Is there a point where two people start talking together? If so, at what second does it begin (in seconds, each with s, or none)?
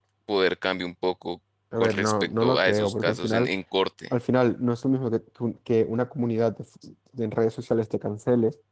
1.7 s